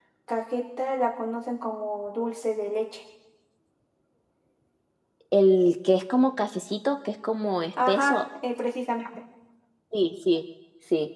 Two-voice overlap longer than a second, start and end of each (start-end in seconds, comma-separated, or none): none